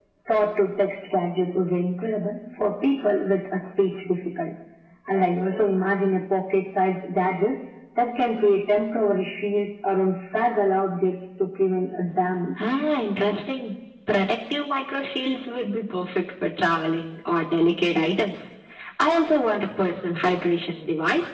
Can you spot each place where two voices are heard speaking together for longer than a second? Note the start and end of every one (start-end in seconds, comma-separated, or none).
none